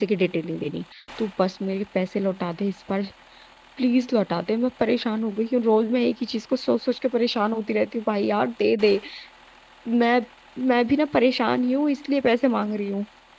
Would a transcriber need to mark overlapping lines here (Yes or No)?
No